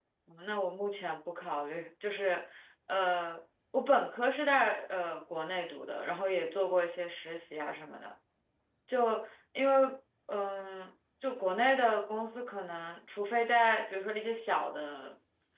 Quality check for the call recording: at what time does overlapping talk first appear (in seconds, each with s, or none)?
none